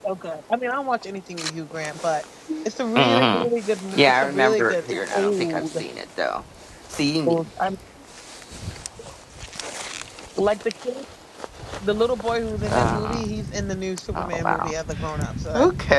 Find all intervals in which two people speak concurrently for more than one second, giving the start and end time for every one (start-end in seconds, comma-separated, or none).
3.9-5.8